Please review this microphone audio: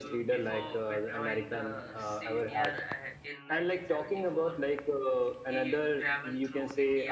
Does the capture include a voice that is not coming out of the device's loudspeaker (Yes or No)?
Yes